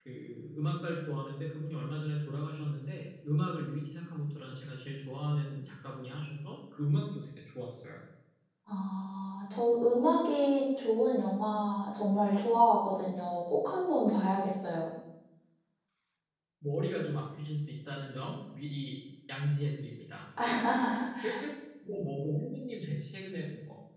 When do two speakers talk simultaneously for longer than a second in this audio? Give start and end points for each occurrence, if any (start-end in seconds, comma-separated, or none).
none